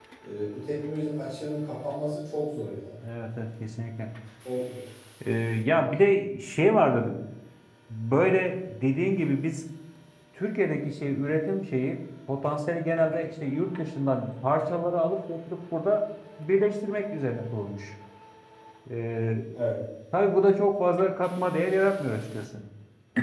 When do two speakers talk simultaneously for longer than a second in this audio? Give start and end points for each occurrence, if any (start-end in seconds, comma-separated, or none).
none